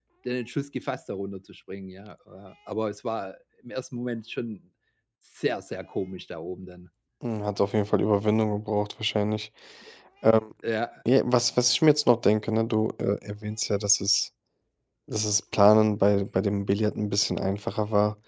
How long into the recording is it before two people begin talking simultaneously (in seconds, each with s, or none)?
none